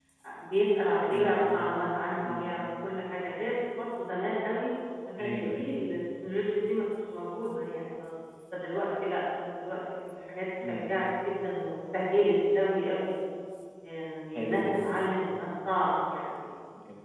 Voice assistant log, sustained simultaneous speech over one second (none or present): none